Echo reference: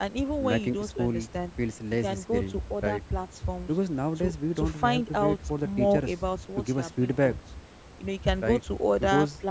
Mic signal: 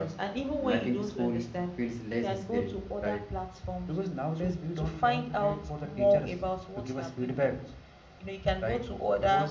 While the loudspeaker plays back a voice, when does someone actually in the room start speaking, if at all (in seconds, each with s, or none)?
none